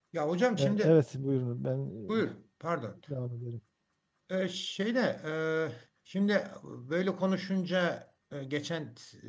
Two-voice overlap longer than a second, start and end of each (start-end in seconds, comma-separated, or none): none